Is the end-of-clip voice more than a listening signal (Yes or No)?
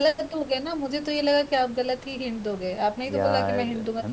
Yes